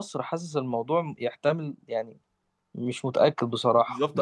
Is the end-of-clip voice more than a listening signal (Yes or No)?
Yes